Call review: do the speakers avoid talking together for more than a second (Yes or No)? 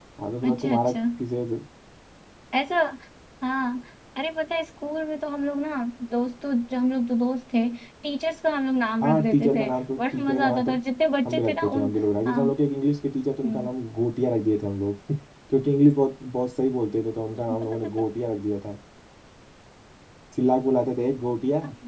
No